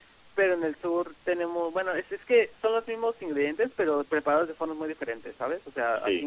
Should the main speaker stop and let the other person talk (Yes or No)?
No